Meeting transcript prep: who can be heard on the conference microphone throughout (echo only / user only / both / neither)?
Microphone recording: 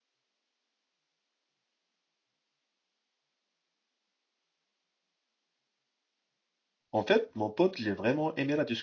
user only